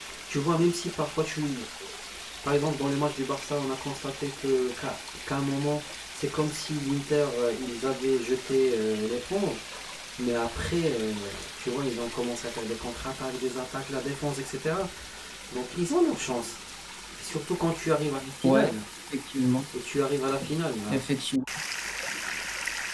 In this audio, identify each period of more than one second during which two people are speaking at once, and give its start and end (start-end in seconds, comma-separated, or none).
none